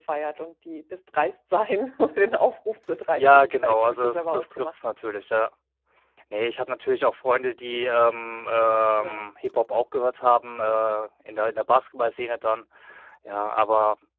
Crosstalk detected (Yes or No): Yes